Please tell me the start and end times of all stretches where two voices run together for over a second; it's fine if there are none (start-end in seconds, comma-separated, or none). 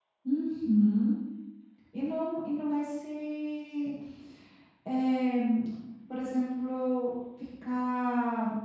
none